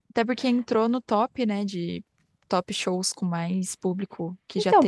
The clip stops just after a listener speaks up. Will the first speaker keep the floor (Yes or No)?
No